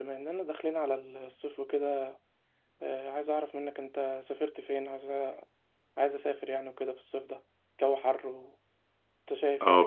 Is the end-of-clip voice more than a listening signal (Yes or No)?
Yes